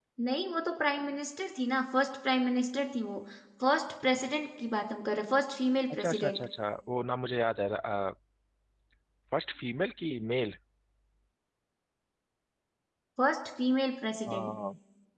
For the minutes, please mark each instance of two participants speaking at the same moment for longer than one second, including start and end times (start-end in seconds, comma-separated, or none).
none